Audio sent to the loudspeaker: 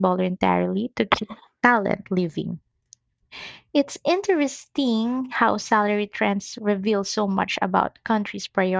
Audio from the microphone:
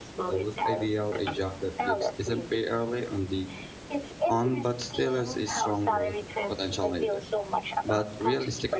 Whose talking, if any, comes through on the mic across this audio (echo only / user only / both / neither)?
both